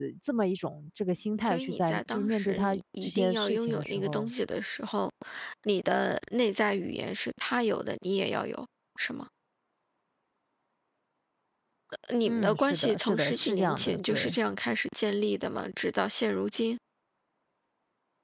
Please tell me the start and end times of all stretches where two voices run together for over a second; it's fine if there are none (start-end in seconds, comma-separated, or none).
1.4-4.3, 12.2-14.3